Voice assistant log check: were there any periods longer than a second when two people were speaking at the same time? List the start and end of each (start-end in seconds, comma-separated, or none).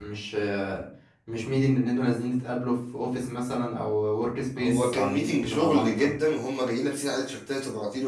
4.6-6.2